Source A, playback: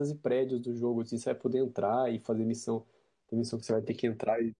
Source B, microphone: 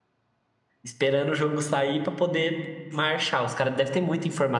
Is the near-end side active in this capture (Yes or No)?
Yes